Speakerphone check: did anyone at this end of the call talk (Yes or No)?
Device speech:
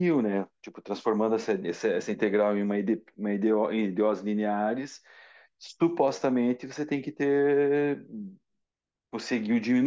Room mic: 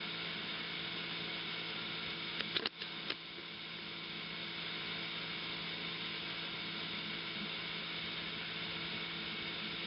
No